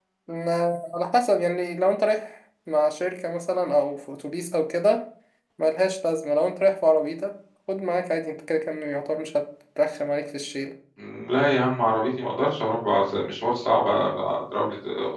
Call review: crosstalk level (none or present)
none